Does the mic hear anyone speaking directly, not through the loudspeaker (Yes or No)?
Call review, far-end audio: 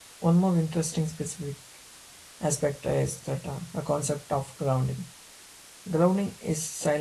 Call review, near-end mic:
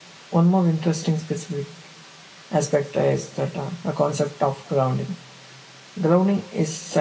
No